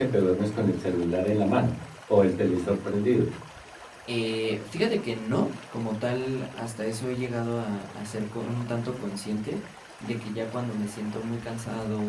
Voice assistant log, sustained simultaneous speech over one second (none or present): none